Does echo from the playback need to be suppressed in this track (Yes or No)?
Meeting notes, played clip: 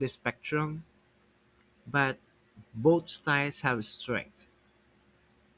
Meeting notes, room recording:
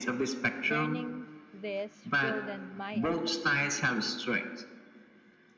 Yes